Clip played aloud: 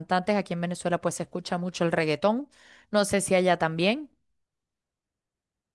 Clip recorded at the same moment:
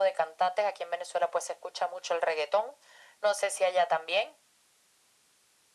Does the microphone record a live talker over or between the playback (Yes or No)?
No